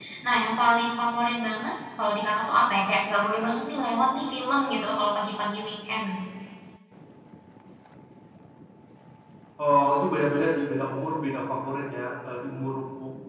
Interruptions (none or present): none